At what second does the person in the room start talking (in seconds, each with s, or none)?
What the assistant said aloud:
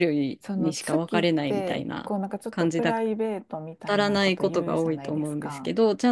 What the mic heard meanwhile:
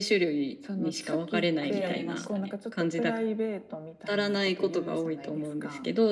1.6 s